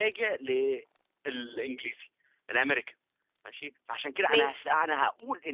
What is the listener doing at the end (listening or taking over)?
listening